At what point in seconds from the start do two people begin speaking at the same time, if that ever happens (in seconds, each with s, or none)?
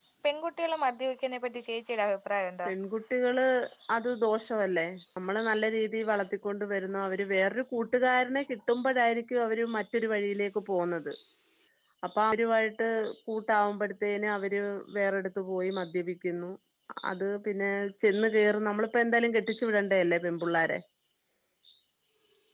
none